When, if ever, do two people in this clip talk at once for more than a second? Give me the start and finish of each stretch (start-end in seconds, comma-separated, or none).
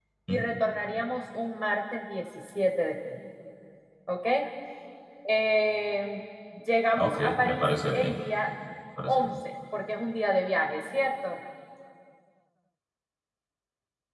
7.0-8.2